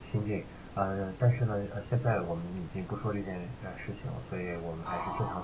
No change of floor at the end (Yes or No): Yes